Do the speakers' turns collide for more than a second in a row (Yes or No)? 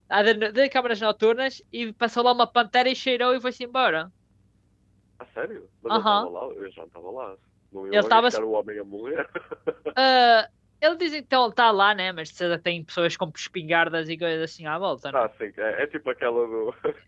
No